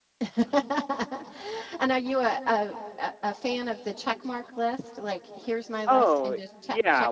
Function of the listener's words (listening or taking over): taking over